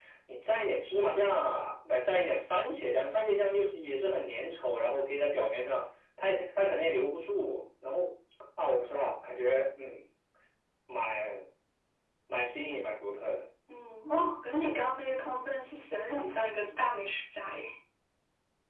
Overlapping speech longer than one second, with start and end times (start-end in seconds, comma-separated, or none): none